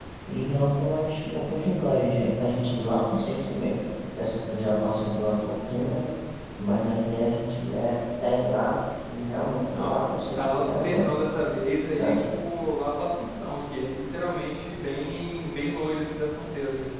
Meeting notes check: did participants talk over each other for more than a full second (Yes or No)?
Yes